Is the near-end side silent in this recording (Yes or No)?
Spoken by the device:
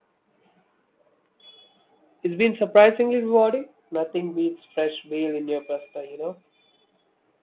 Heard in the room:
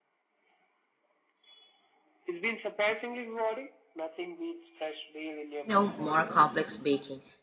No